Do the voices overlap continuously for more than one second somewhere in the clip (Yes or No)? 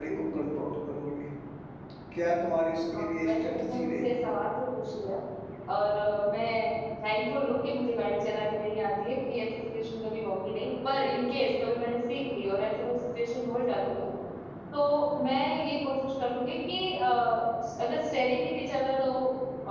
Yes